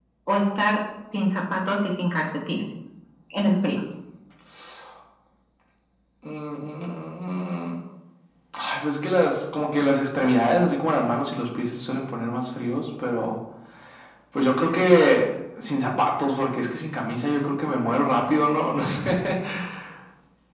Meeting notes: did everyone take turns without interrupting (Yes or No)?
Yes